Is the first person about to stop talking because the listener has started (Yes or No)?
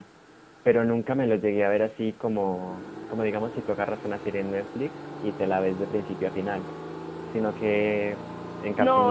Yes